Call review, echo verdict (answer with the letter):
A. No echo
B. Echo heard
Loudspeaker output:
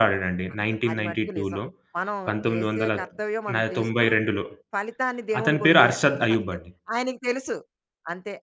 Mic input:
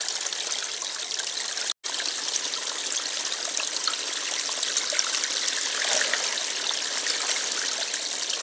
A